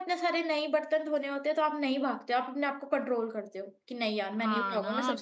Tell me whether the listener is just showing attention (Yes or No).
No